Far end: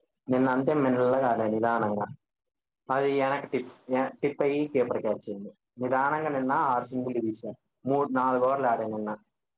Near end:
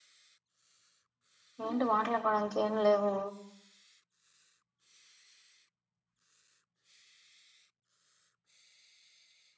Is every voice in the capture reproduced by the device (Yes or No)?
No